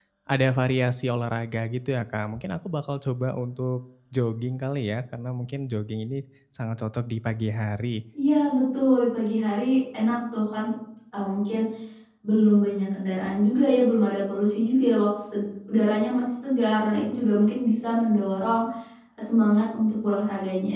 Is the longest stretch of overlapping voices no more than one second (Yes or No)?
Yes